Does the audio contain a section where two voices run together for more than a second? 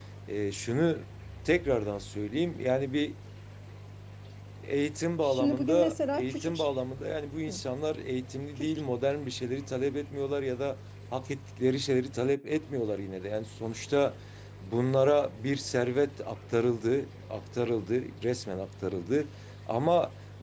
Yes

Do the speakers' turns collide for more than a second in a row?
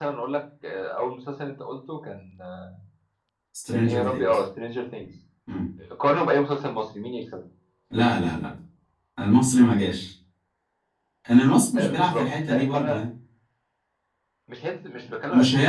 Yes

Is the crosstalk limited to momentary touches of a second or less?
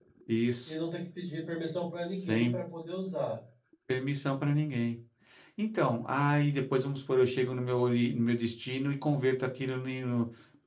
Yes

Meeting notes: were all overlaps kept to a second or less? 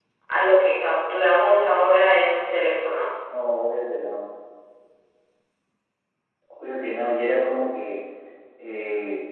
Yes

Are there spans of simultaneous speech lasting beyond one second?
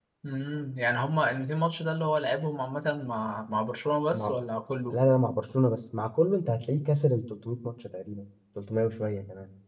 No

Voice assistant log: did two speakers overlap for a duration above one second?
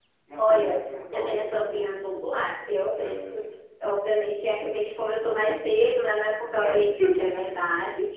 Yes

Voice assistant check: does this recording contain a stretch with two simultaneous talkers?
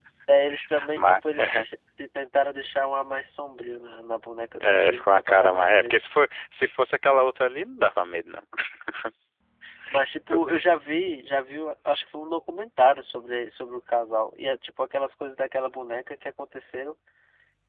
Yes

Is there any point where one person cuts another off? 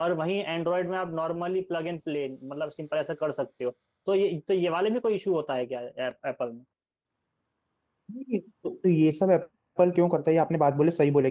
No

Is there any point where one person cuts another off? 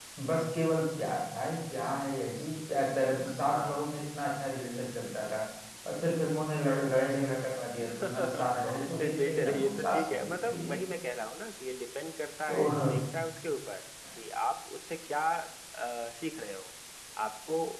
Yes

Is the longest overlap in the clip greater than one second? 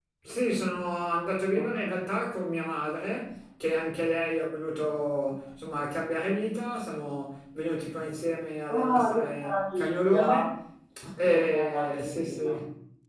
Yes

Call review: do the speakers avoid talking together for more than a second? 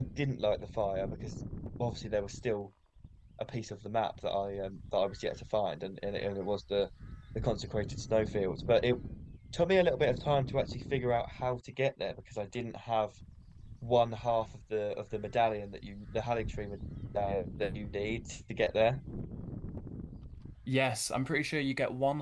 Yes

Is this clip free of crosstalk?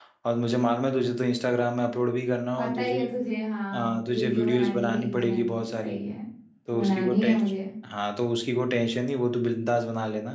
No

